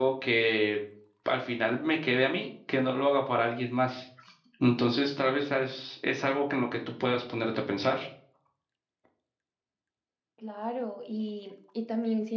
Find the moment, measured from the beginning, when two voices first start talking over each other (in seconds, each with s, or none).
none